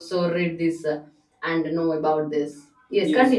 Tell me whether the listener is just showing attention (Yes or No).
No